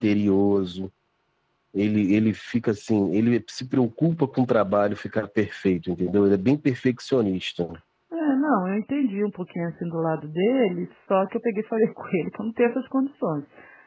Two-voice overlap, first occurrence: none

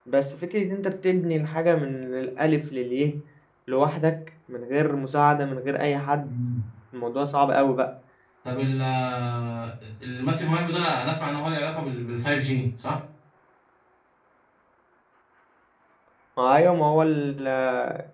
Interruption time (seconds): none

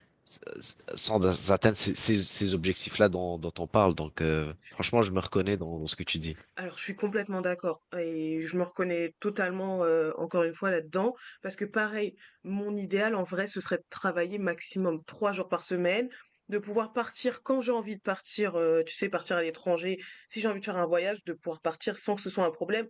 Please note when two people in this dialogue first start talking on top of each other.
none

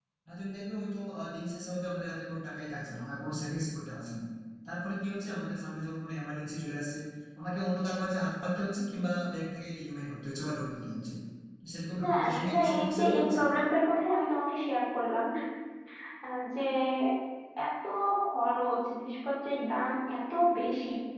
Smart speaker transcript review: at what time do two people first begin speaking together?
12.0 s

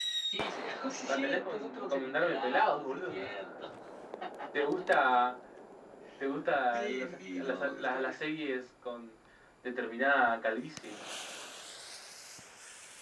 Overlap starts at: 1.1 s

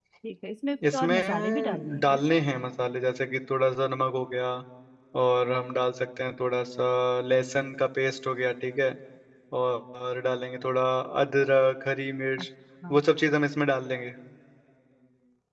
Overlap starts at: 0.9 s

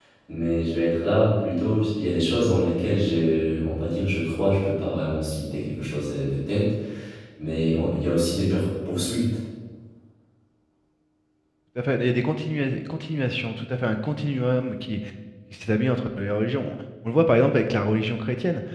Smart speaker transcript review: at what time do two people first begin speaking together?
none

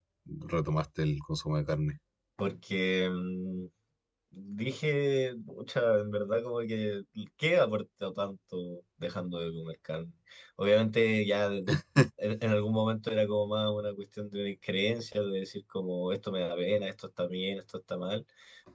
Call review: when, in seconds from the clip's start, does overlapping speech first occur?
none

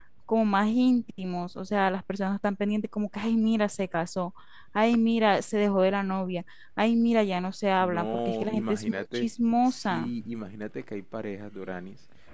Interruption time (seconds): 7.8 s

